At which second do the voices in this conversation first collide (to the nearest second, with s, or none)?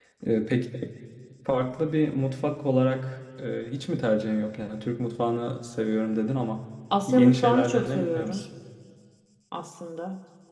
7 s